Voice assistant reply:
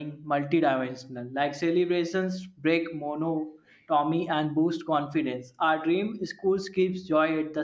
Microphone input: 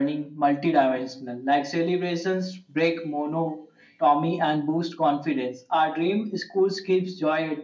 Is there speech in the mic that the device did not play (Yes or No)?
No